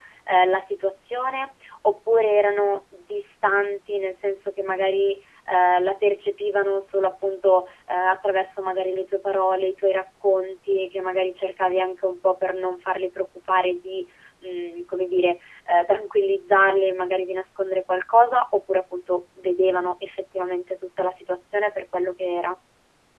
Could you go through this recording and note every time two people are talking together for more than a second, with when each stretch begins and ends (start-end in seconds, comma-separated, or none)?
none